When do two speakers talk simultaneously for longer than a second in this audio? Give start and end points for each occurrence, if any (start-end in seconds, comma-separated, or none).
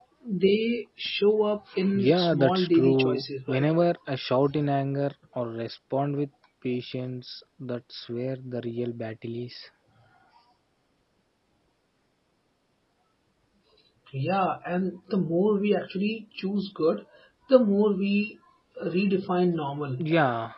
2.1-3.6